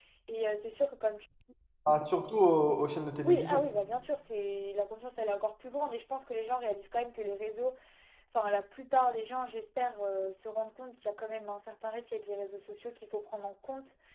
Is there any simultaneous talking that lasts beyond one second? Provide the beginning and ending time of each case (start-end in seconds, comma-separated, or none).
none